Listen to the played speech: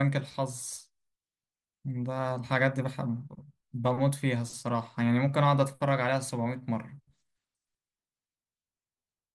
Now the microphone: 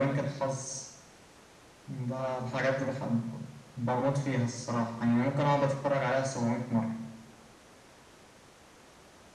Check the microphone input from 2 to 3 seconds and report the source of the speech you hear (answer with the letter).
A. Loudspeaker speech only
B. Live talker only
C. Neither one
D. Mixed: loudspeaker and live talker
A